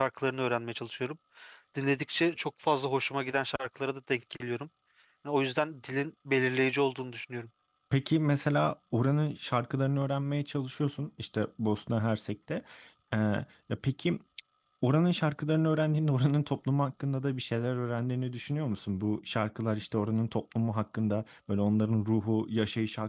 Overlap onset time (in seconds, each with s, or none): none